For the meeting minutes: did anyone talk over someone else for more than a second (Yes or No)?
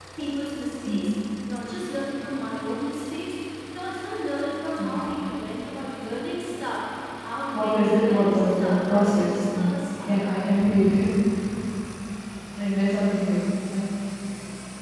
Yes